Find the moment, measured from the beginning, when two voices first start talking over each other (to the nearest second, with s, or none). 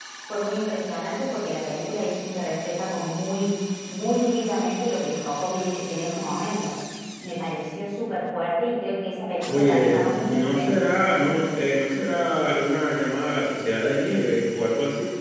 9 s